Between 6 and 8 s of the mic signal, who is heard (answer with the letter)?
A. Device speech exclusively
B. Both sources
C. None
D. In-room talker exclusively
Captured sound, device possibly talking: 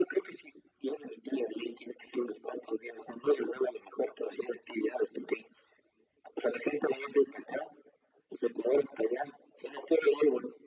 A